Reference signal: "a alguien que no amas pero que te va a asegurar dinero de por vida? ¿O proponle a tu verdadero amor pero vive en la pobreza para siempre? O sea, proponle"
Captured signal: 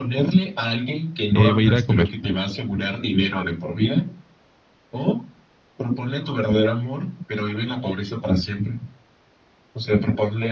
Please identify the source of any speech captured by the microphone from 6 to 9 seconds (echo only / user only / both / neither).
echo only